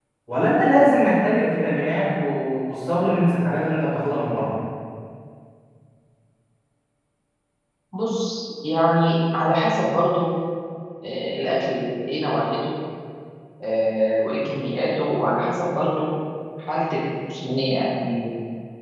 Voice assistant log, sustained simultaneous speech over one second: none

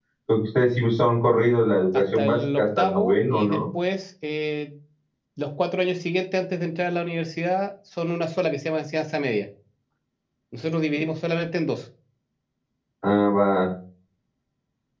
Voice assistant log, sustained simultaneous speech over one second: present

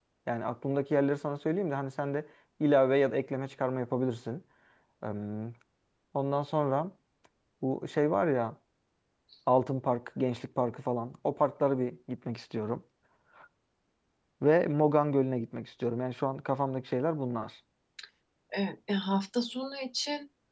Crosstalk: none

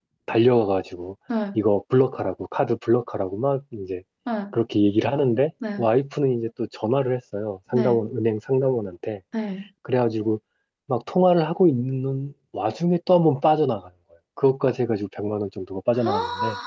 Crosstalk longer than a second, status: none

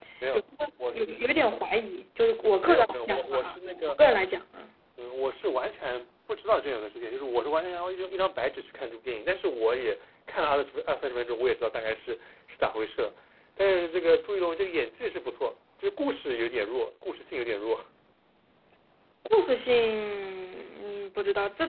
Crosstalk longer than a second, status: present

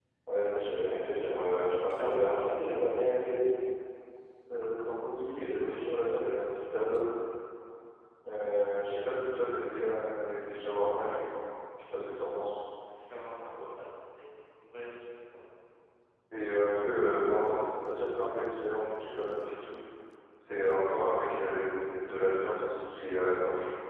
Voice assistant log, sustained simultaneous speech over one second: none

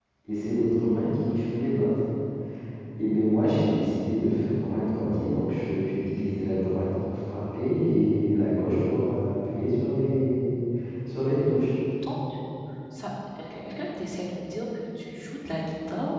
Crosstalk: none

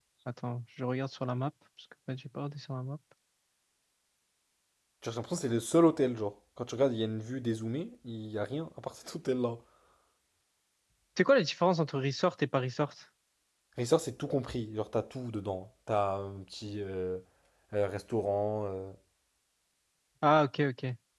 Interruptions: none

